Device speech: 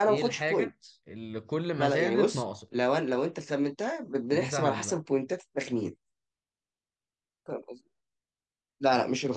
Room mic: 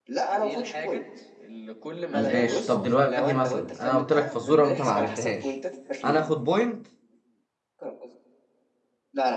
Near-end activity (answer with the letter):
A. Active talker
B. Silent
A